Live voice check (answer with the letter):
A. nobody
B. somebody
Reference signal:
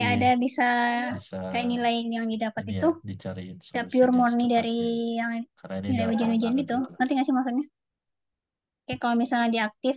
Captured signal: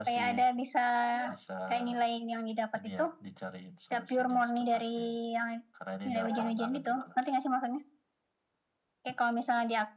A